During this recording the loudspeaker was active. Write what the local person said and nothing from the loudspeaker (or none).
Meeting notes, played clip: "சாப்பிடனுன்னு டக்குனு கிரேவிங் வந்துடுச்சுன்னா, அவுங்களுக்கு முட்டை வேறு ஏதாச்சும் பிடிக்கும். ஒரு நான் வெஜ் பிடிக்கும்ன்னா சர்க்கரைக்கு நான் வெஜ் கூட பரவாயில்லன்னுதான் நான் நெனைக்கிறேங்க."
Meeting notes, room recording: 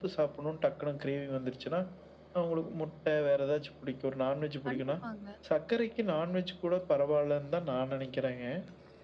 கண்டிப்பாங்க.